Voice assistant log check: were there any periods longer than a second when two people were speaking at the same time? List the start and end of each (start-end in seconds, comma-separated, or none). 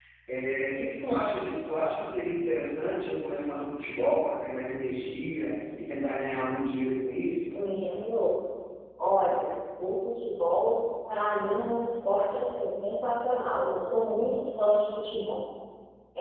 none